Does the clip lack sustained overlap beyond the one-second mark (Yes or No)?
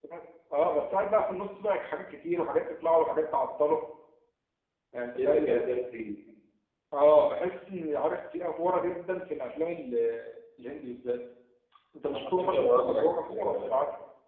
No